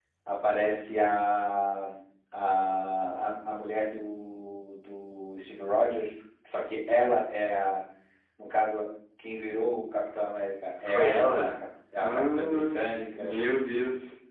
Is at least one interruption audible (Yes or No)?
Yes